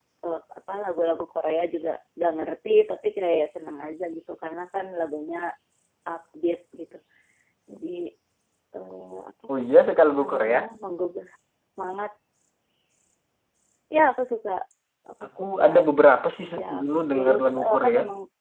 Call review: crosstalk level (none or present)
present